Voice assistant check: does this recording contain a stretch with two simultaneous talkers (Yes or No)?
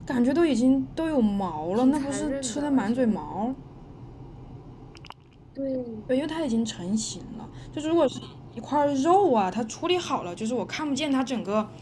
Yes